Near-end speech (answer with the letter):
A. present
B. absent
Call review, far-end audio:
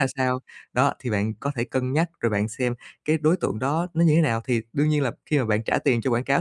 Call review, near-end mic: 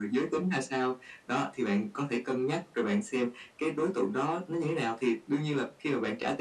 B